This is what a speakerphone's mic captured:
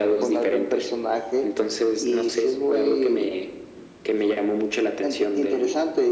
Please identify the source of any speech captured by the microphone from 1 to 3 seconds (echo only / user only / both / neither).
echo only